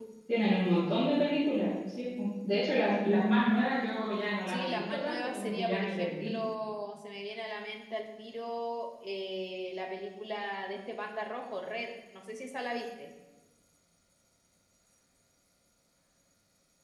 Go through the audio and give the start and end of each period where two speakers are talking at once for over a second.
4.5-6.3

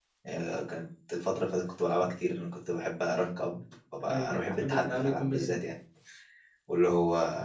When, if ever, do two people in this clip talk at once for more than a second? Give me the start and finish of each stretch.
4.1-5.6

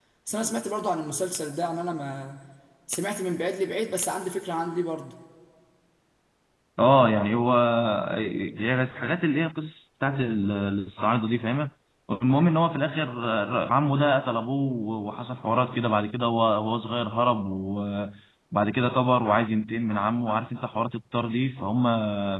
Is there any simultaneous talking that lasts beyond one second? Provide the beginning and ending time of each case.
none

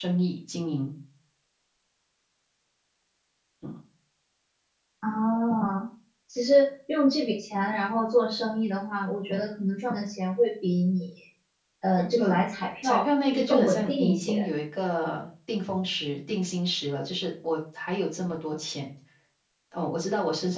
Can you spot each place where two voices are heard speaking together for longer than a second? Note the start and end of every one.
12.8-14.5

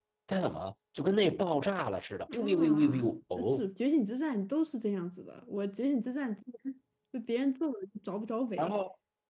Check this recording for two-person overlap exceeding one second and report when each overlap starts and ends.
2.3-3.7

